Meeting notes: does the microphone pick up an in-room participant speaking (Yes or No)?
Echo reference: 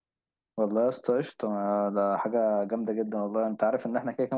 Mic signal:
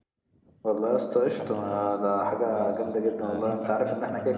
Yes